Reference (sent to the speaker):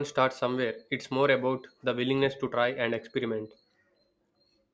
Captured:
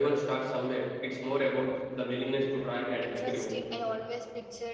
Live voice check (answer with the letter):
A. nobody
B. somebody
B